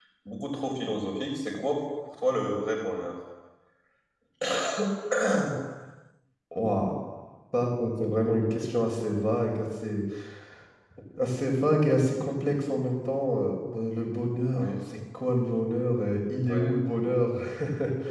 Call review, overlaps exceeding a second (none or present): none